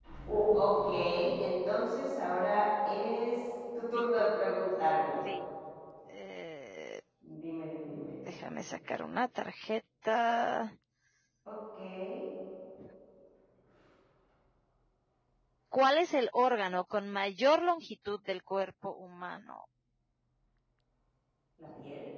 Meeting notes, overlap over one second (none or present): none